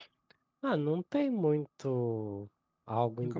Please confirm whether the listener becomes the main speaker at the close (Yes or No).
No